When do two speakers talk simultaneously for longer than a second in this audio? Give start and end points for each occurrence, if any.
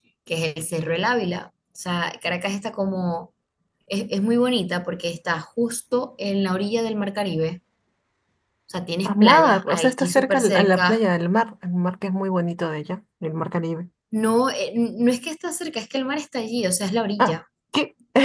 9.1-11.0

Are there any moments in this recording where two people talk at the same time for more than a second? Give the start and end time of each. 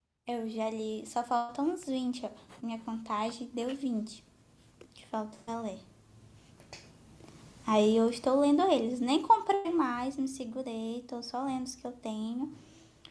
none

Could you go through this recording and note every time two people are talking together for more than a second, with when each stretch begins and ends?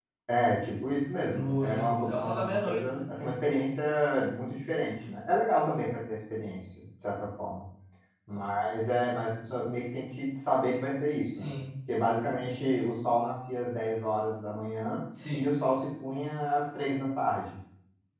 1.3-3.2

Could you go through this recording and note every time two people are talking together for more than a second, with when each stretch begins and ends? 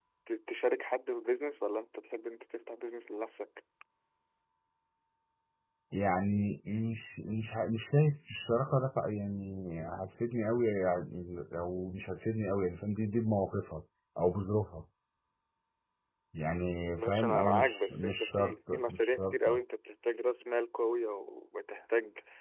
16.9-19.6

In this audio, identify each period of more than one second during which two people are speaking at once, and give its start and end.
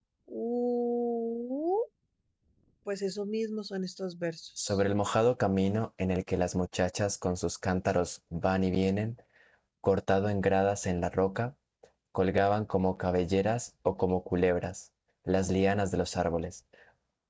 none

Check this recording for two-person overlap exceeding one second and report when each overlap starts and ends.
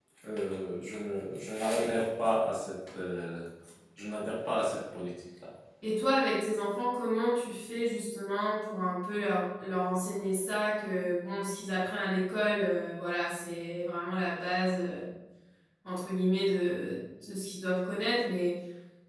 none

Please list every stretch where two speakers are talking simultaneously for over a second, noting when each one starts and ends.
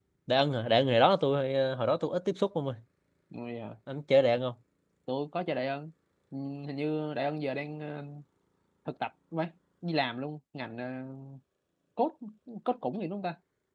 none

